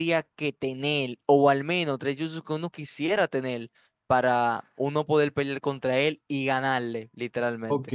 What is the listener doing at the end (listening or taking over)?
taking over